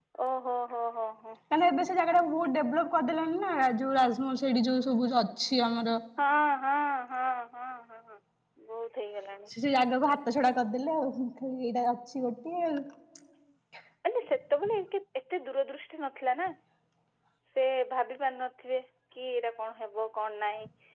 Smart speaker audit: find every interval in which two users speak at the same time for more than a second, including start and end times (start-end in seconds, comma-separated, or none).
none